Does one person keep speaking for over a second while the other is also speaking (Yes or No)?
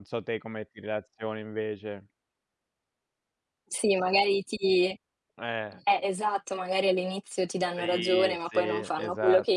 Yes